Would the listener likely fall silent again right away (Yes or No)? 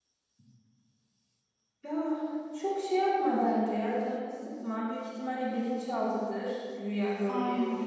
No